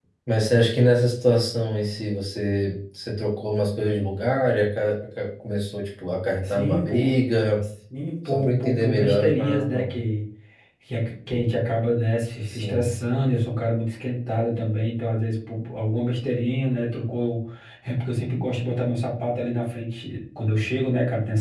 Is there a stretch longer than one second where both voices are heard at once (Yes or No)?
Yes